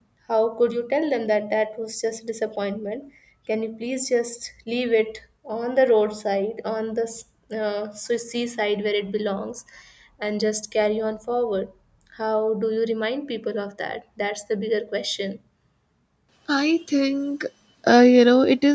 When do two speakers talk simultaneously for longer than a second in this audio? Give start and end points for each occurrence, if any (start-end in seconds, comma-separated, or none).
none